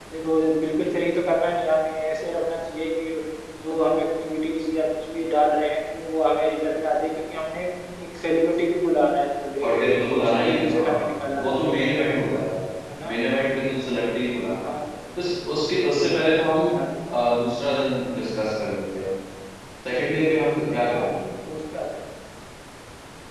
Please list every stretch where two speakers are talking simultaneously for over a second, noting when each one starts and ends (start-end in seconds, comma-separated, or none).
9.6-11.9